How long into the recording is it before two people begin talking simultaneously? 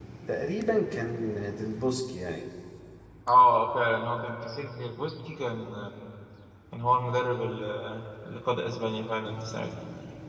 none

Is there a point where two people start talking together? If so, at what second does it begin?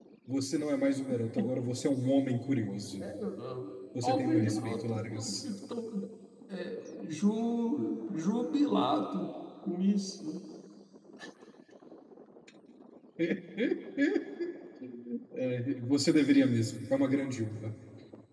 4.0 s

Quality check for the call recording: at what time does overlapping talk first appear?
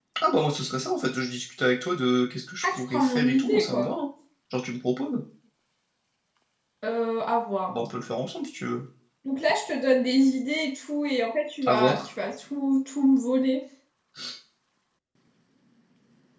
2.6 s

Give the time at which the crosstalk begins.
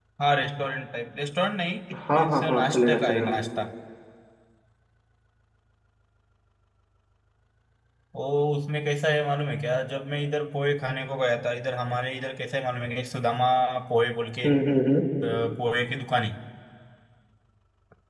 2.1 s

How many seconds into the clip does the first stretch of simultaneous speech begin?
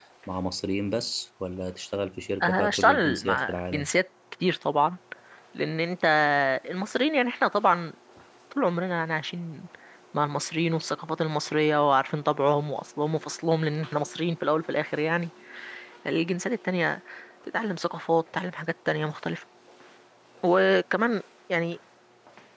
2.4 s

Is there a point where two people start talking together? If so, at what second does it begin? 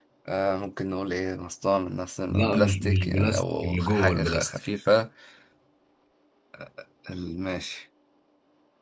2.3 s

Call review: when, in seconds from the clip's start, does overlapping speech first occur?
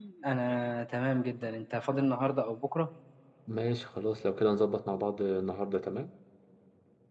none

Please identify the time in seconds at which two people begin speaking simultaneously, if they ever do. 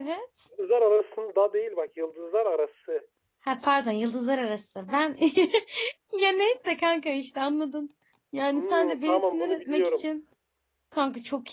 8.5 s

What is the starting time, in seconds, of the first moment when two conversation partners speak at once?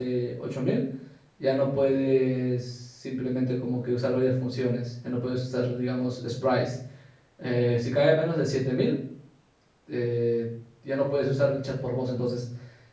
none

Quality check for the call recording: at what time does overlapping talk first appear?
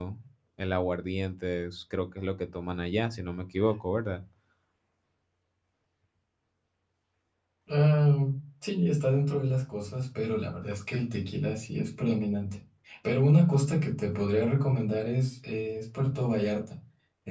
none

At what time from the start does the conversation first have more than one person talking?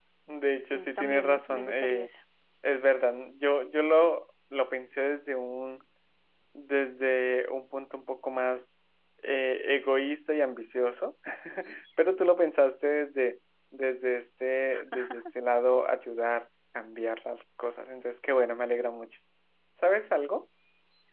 0.7 s

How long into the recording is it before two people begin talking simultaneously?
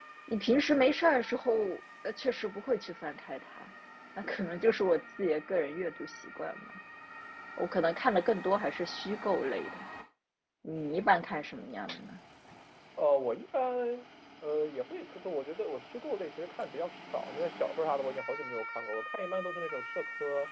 none

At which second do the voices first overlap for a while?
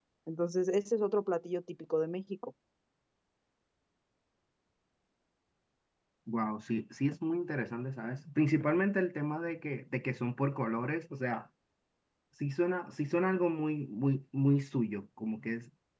none

